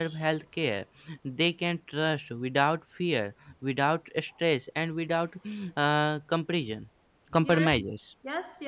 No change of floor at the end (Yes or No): No